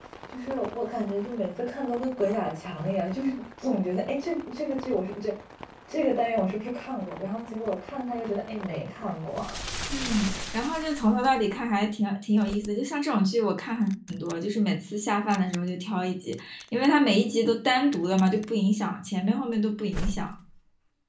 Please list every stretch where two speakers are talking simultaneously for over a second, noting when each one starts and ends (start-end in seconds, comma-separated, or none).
none